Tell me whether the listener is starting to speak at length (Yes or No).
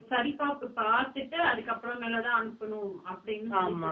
Yes